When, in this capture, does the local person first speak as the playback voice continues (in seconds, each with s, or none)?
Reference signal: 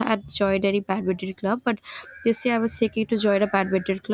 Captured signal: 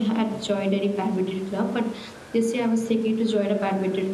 none